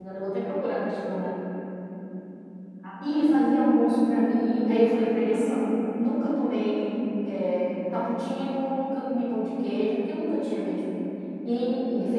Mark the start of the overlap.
3 s

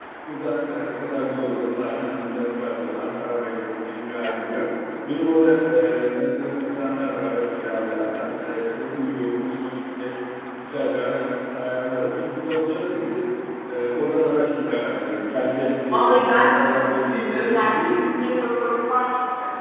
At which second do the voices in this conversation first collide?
16 s

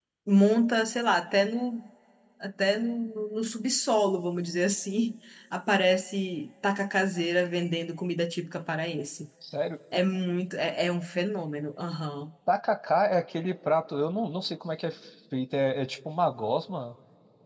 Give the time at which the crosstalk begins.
none

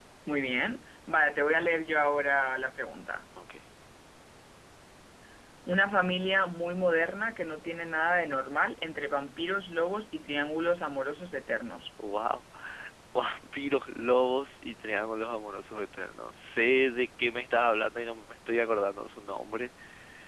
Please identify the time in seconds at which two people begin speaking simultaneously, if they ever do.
none

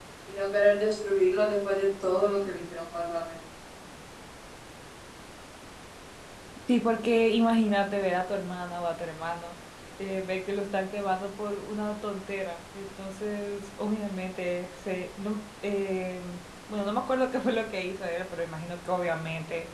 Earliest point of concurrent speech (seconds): none

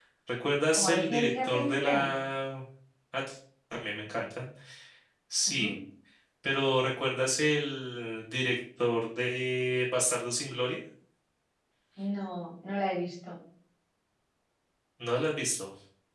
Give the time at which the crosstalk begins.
1 s

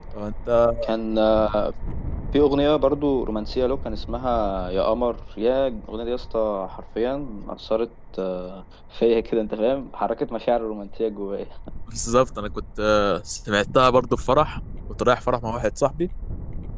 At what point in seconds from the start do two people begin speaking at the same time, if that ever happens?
none

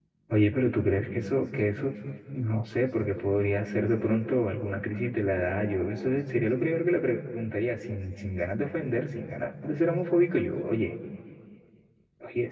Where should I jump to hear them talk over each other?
none

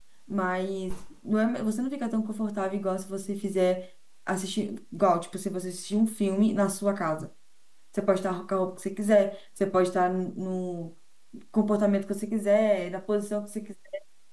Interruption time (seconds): none

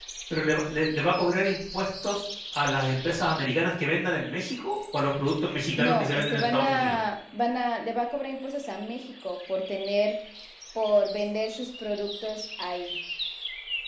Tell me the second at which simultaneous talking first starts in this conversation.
6 s

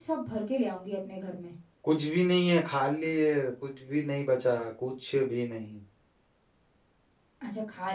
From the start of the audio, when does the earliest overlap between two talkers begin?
none

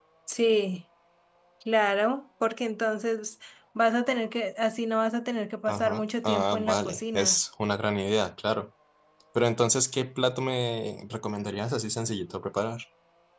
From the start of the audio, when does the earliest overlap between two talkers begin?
6 s

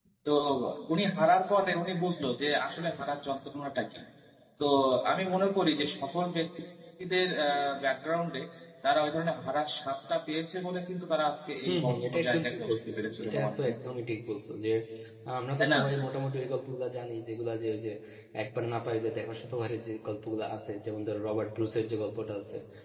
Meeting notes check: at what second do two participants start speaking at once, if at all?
12 s

